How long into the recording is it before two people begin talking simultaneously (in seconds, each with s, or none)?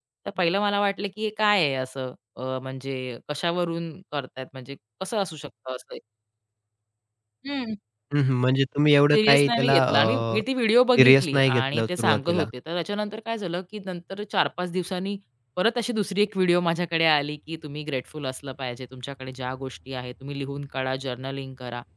9.1 s